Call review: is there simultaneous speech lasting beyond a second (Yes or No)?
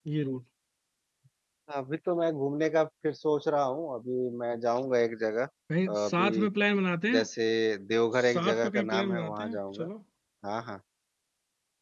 Yes